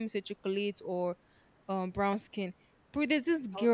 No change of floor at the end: Yes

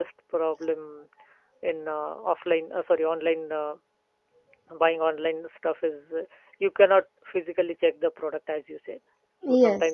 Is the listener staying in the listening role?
Yes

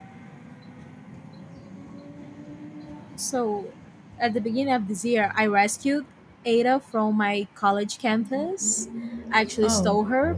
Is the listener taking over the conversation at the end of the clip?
No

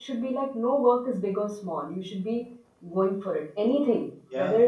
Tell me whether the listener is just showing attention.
Yes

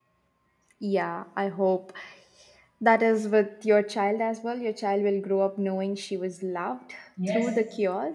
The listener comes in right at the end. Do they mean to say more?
Yes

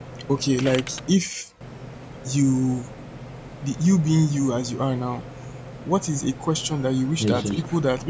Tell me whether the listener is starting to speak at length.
No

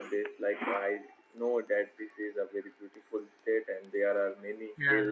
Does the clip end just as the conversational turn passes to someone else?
No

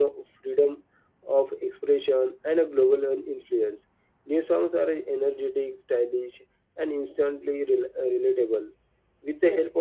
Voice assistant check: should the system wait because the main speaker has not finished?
Yes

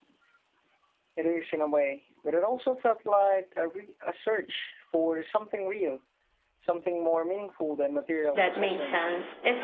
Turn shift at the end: Yes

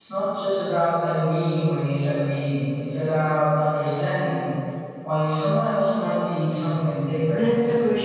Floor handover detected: Yes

